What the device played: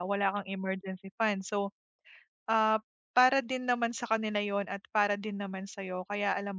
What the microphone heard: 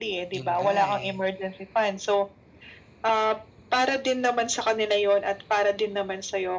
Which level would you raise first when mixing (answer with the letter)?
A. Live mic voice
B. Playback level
A